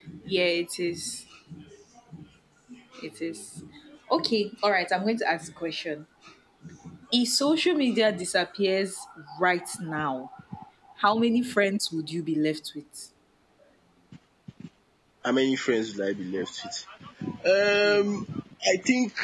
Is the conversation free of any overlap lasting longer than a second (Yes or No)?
Yes